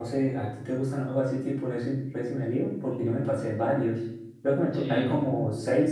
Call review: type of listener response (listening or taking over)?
listening